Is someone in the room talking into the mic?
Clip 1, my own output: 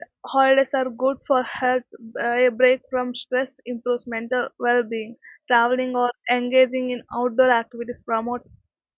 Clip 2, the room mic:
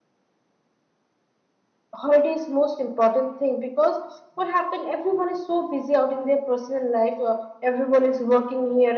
Yes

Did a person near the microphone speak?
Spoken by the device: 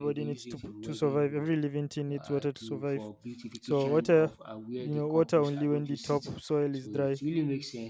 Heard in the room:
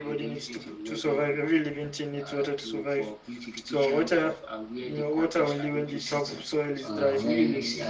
Yes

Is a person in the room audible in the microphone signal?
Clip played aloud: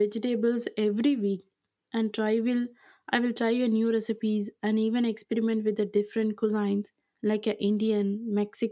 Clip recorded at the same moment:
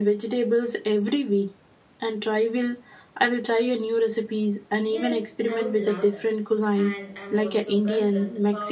Yes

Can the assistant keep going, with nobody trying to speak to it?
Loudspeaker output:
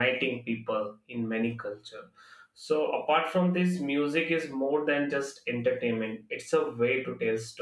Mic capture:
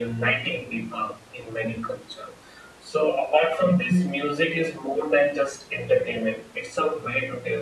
Yes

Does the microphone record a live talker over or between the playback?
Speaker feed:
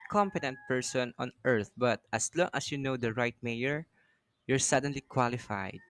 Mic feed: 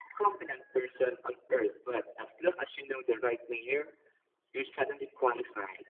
No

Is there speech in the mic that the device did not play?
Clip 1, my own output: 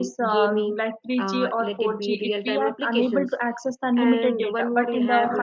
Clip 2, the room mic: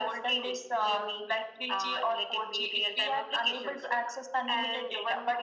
No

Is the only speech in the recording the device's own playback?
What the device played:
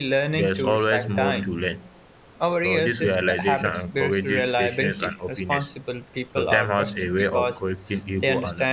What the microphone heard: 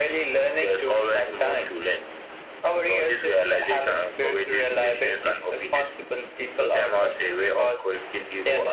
Yes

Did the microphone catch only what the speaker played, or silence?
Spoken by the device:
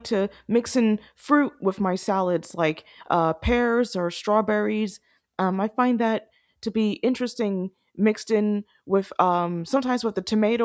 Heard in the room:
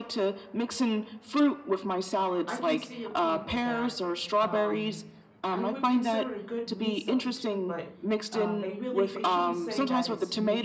No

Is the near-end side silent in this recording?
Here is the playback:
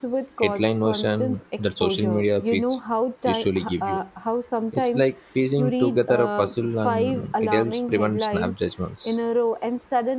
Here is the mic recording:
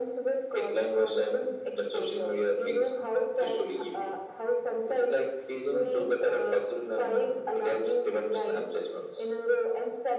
Yes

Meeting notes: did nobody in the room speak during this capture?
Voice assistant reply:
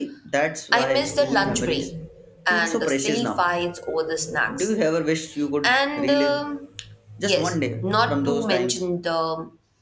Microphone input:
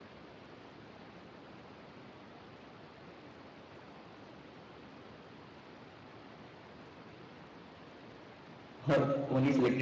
No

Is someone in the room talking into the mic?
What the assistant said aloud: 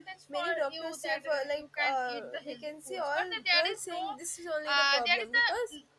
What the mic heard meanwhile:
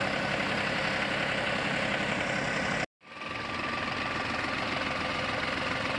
No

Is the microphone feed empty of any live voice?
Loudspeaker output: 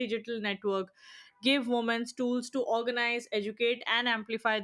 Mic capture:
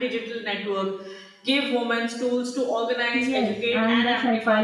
No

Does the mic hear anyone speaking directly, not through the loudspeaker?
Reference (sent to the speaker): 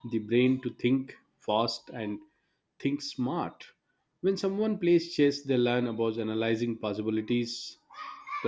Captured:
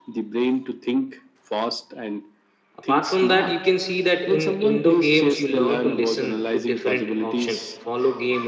Yes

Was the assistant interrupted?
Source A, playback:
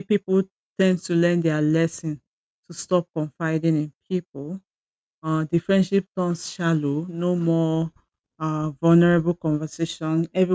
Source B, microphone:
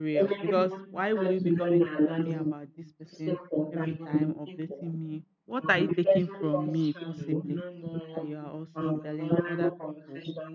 Yes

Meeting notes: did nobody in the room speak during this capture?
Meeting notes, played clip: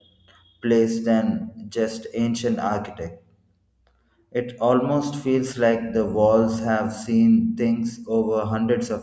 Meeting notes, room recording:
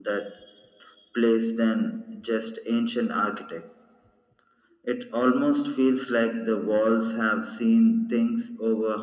Yes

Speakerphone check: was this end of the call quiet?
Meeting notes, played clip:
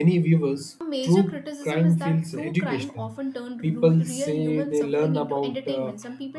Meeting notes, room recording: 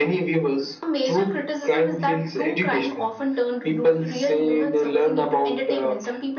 Yes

